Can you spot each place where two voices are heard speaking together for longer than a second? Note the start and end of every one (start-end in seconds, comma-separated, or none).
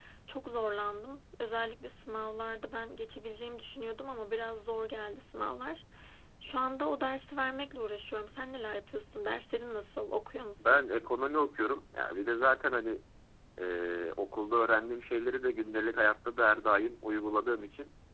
none